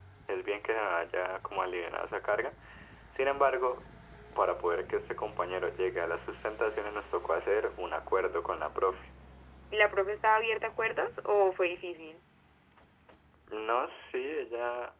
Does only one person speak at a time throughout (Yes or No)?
Yes